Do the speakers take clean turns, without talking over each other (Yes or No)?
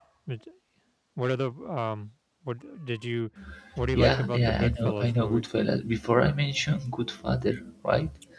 No